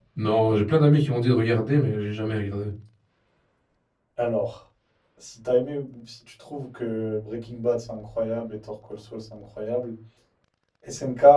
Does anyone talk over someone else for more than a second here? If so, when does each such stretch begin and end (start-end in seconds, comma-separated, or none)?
none